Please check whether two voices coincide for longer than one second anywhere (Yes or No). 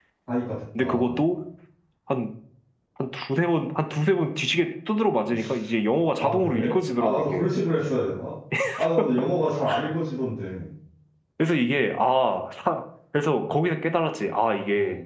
Yes